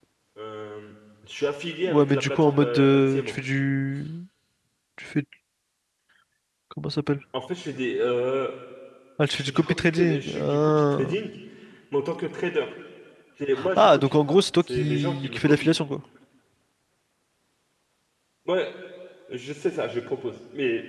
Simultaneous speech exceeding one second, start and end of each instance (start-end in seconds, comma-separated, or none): 1.9-3.3, 9.3-11.1, 13.8-15.7